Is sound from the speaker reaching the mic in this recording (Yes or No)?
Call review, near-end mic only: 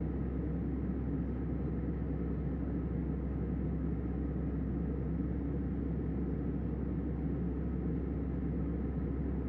No